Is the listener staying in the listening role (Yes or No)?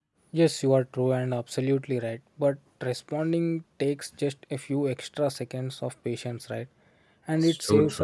Yes